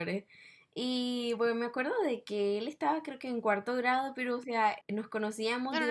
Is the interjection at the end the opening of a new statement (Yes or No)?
Yes